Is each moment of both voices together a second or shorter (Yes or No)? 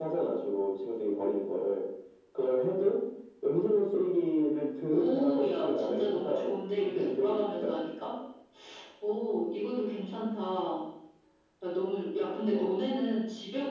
No